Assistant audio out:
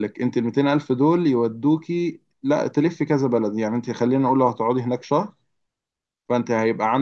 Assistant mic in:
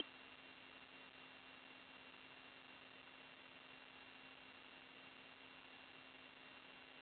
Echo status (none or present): none